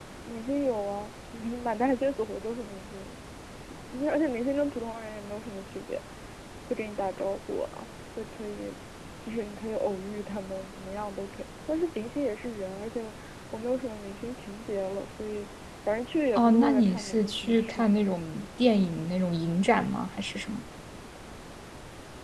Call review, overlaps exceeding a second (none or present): present